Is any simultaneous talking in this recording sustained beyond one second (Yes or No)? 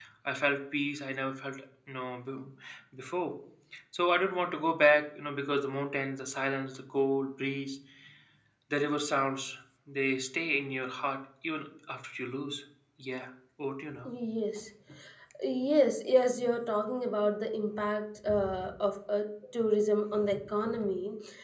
No